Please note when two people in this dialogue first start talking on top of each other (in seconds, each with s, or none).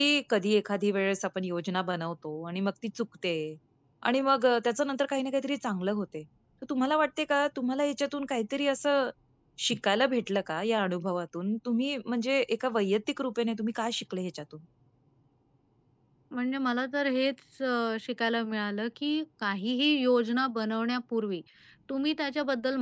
none